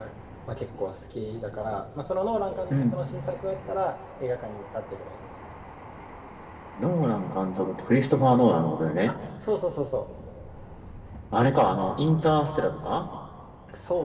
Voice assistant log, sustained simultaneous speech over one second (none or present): none